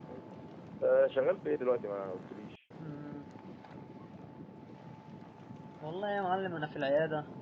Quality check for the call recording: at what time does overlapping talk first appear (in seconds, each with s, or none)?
none